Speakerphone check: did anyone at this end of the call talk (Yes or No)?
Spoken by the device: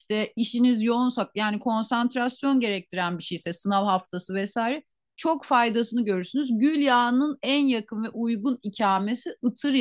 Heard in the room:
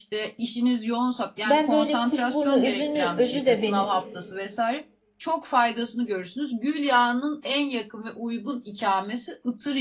Yes